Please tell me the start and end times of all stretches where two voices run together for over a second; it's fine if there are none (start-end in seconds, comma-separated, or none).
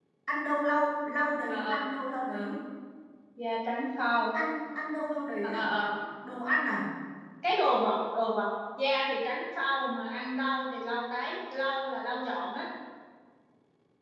none